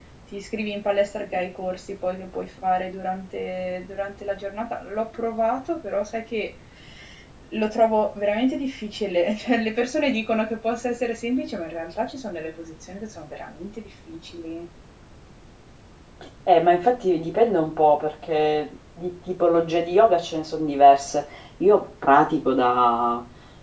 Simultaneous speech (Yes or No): No